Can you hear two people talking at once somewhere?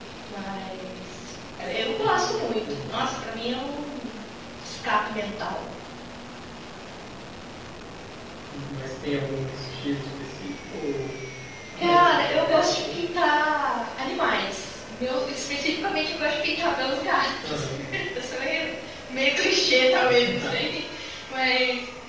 Yes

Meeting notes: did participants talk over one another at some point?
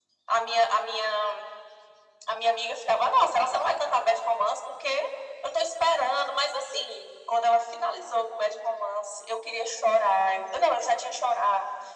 No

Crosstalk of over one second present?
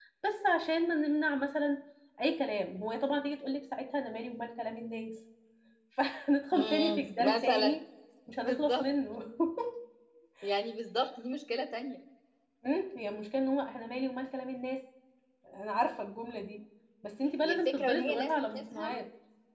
Yes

